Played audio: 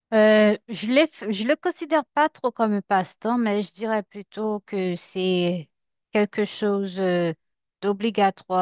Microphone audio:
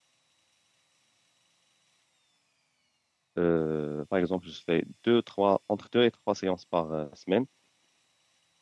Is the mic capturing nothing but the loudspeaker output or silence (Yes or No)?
No